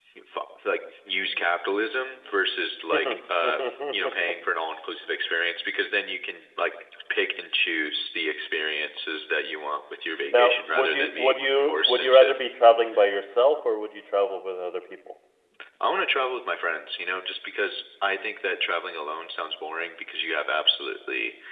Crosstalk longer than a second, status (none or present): present